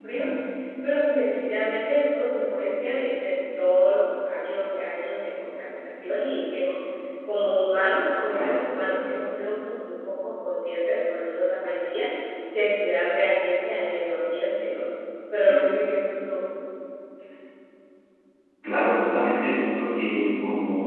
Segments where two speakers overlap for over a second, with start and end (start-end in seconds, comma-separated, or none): none